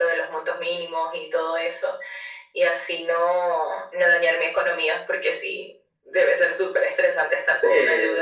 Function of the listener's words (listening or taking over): taking over